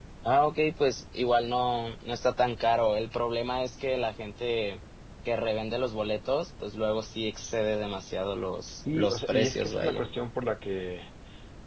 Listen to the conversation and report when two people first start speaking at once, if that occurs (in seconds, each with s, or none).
8.7 s